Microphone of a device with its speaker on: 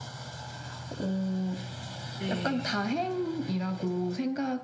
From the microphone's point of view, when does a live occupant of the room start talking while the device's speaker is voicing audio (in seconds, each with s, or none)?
2.2 s